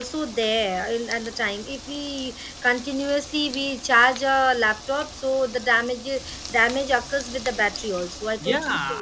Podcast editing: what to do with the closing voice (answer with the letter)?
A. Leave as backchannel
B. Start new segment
B